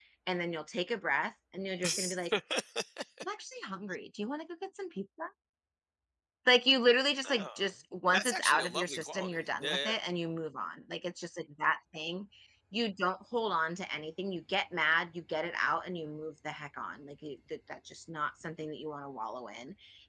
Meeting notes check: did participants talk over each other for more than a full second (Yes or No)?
Yes